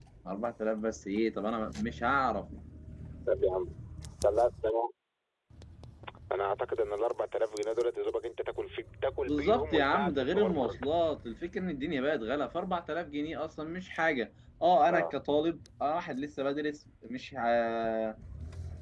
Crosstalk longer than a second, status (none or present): present